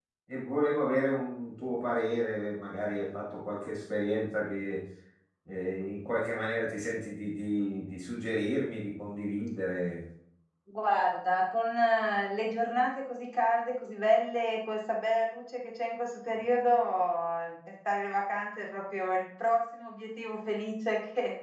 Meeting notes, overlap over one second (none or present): none